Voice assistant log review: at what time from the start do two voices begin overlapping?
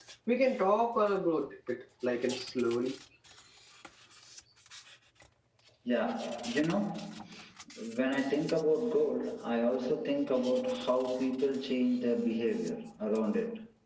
none

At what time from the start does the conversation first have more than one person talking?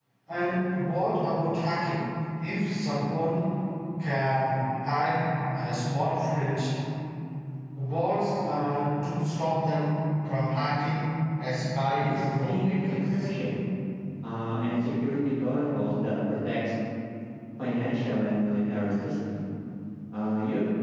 12.0 s

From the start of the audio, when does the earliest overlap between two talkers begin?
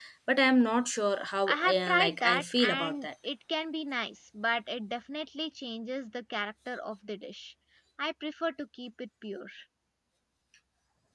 1.5 s

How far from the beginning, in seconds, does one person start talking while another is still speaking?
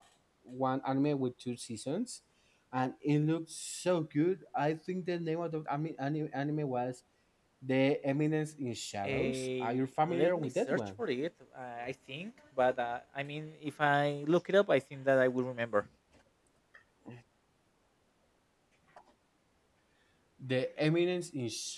9.0 s

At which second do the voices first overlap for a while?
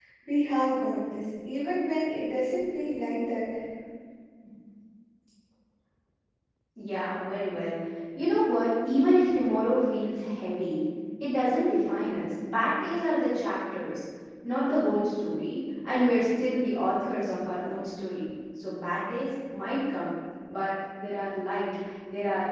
none

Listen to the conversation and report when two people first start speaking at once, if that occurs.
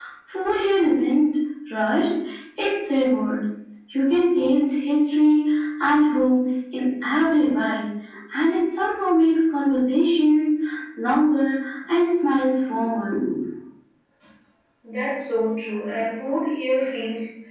none

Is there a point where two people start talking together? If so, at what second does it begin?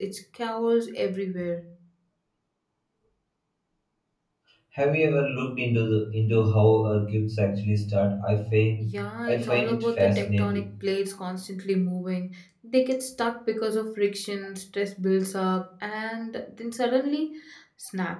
8.8 s

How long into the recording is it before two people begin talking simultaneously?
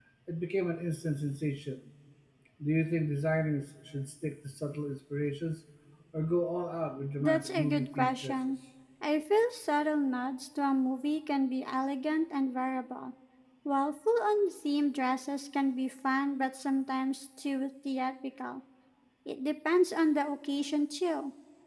7.2 s

